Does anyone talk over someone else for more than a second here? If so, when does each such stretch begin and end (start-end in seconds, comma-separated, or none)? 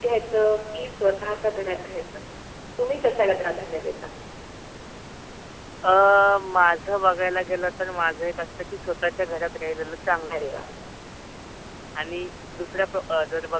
none